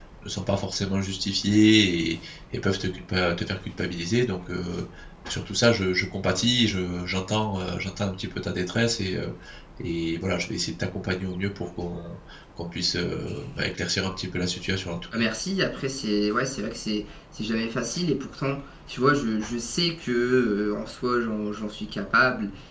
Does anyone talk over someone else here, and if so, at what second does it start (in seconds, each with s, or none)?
none